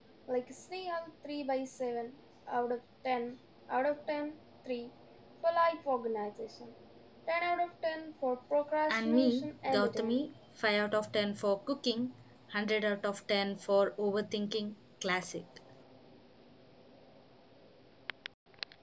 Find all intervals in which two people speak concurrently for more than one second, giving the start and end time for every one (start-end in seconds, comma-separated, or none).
8.9-10.3